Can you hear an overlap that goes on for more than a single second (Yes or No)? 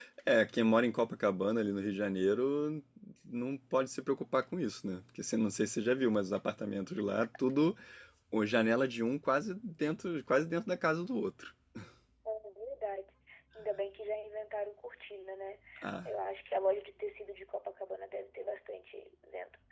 No